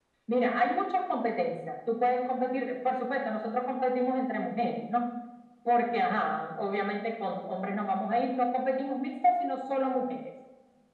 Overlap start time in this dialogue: none

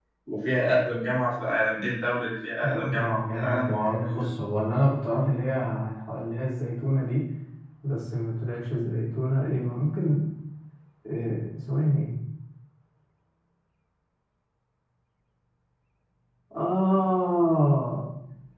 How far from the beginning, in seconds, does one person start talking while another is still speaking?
2.6 s

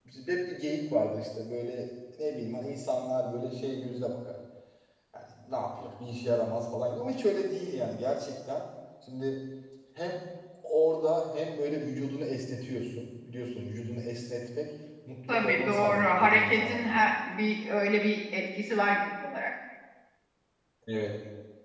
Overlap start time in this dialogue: 15.3 s

